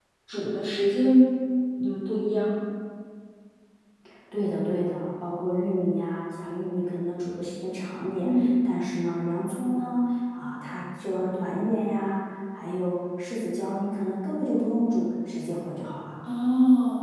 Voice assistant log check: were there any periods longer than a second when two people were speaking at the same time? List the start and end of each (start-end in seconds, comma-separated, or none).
none